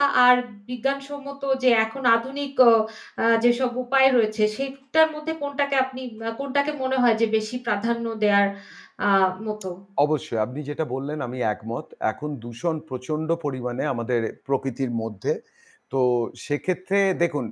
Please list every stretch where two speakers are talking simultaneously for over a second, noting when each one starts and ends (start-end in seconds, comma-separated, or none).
none